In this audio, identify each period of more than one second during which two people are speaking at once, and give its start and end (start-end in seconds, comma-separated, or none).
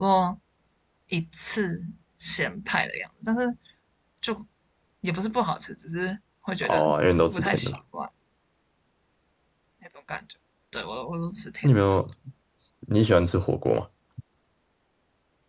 none